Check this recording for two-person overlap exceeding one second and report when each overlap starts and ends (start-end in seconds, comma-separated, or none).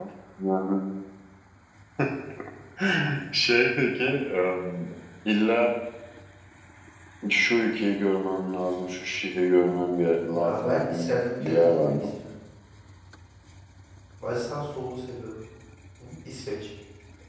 10.3-12.0